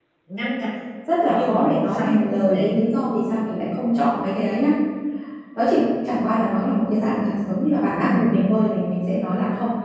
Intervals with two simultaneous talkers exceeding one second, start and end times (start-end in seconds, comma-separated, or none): 1.3-2.8